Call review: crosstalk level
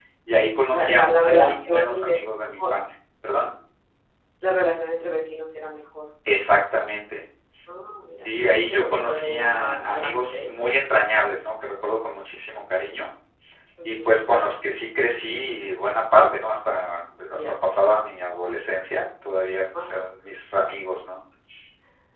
present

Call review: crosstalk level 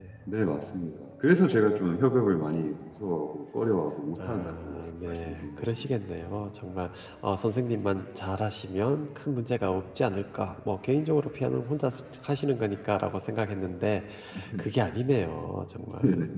present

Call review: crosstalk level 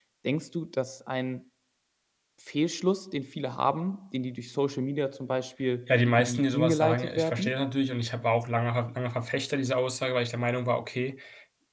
present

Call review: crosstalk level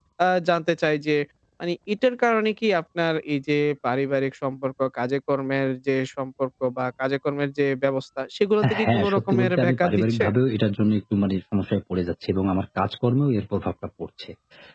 present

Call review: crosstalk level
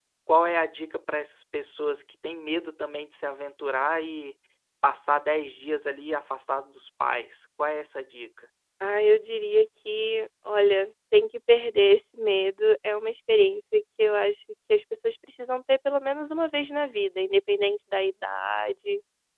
none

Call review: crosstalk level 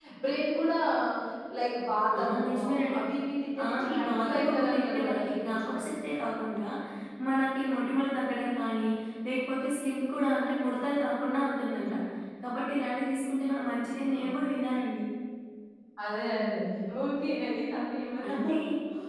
present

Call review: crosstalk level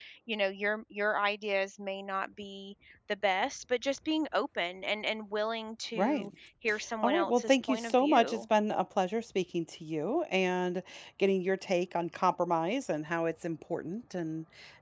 present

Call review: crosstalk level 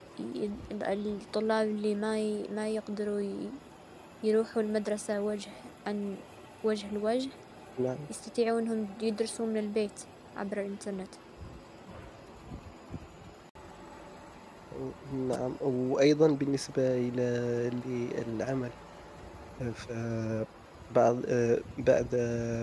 none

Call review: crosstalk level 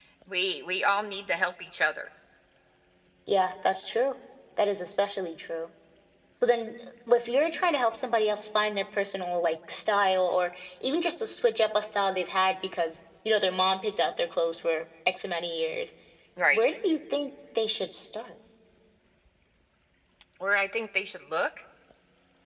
none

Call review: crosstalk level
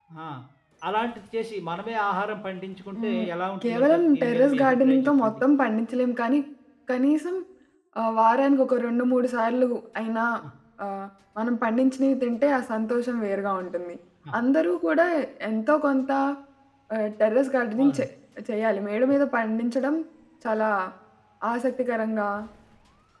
present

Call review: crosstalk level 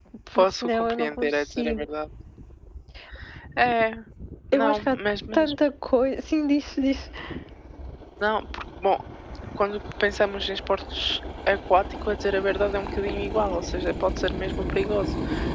present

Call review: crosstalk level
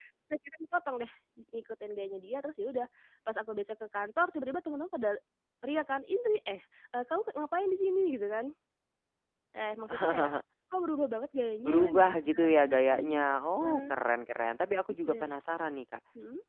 present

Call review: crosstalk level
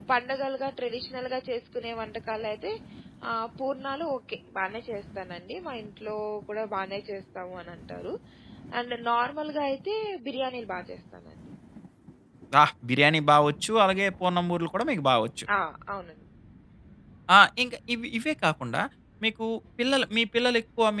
none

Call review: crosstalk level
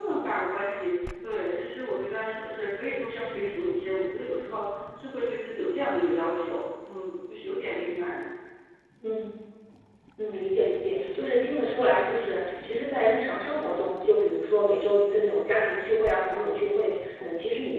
none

